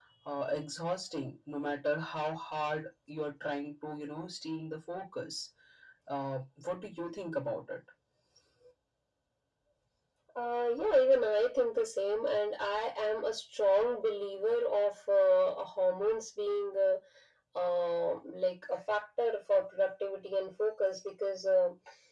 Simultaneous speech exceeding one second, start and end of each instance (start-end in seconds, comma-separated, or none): none